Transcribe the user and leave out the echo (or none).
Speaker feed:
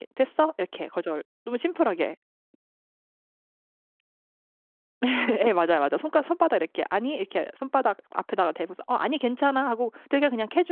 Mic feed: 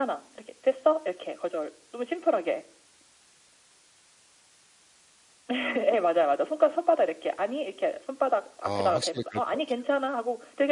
아 확실히 그럴 것 같아요.